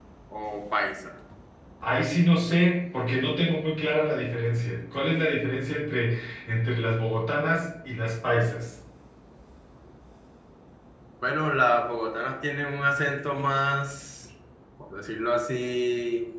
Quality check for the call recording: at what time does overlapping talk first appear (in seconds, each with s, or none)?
none